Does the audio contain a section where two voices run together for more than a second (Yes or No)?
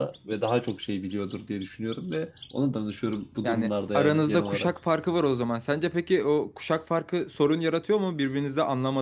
Yes